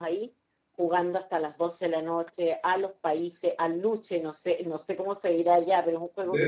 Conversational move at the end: taking over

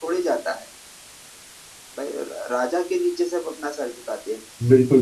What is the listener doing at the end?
taking over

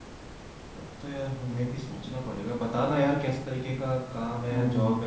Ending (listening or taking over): listening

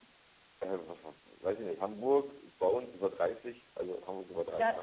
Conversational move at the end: taking over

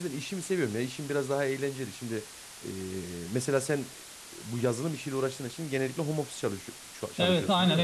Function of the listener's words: taking over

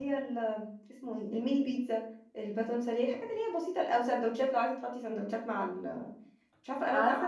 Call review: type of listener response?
taking over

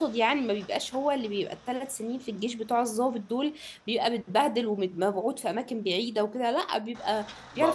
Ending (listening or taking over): taking over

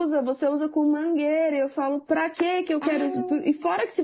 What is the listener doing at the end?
listening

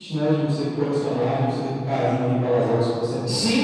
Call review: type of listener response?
taking over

